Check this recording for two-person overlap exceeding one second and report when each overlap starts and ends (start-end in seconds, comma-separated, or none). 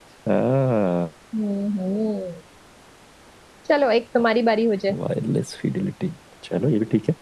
none